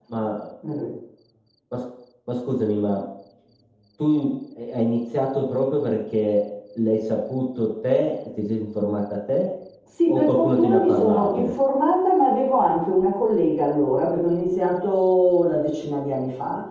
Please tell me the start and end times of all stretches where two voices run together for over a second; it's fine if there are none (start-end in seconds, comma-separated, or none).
10.1-11.5